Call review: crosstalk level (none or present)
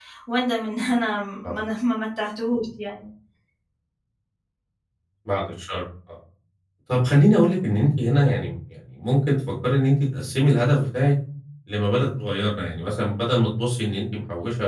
none